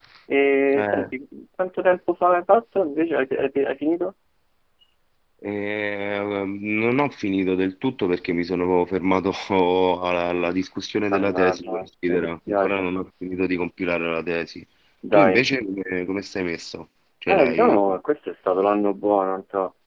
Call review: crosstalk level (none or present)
present